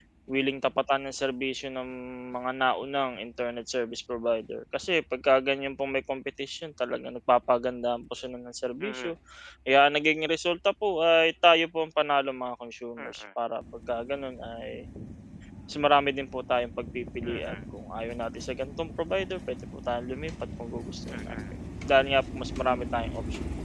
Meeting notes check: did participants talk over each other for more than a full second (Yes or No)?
No